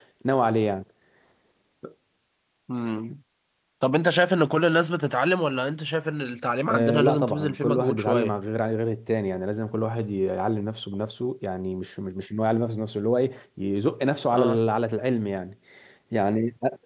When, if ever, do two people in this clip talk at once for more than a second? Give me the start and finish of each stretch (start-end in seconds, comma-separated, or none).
6.7-8.3